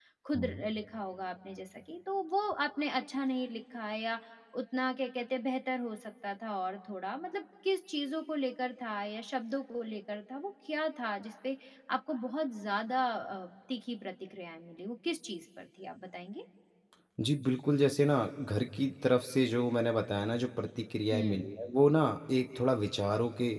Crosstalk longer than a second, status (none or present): none